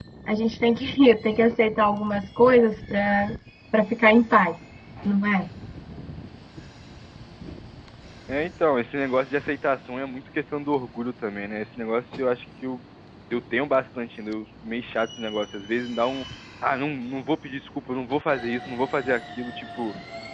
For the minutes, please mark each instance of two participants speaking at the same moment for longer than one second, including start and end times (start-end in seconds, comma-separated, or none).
none